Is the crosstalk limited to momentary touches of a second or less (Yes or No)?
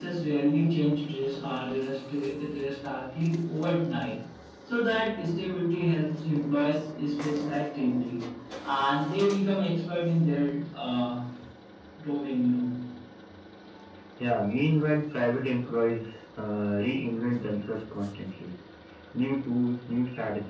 Yes